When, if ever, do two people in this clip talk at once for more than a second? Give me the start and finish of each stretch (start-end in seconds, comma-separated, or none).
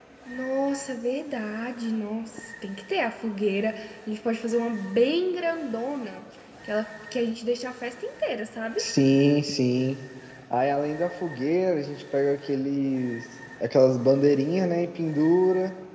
none